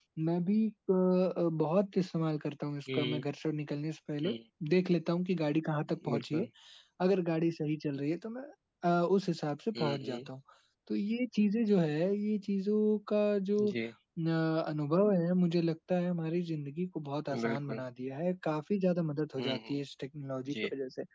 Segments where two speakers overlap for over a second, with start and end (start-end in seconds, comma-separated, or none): none